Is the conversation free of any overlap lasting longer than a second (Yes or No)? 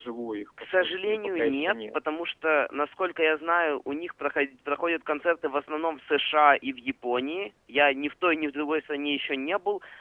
No